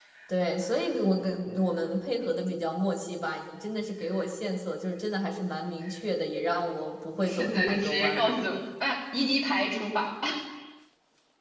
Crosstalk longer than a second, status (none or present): present